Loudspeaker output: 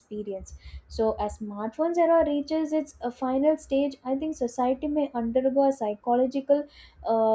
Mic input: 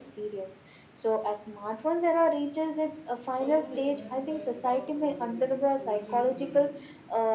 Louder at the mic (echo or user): echo